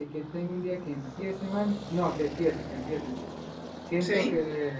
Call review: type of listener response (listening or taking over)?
listening